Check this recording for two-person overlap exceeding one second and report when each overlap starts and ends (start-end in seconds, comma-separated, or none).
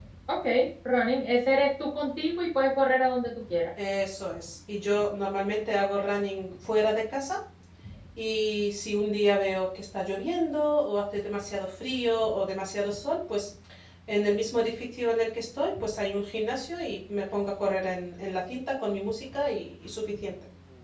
none